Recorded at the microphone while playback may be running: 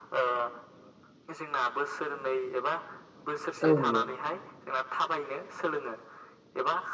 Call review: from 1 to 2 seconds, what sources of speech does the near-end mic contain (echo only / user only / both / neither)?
echo only